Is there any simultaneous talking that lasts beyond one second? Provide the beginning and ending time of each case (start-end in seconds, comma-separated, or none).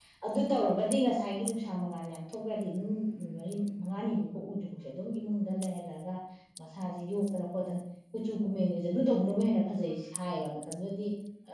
none